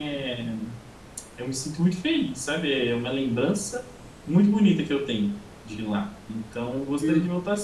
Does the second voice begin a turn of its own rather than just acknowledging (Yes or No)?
No